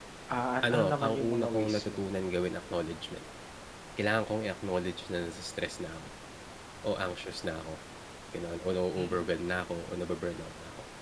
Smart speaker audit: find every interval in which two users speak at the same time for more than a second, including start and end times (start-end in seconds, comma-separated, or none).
0.6-2.0